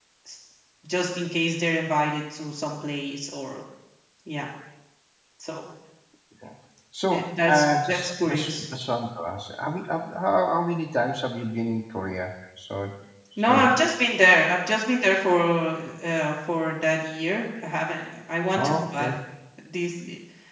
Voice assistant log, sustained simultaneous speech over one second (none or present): present